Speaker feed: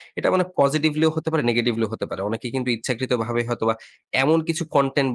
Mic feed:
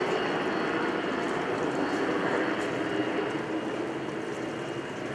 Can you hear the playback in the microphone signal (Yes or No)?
No